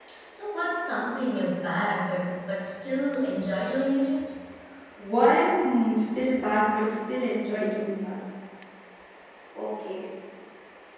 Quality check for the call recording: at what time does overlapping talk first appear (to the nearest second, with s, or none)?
none